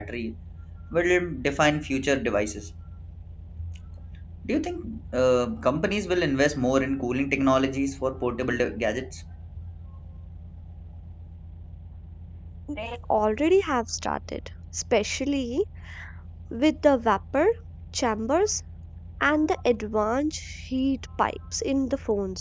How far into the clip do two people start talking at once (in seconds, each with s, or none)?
none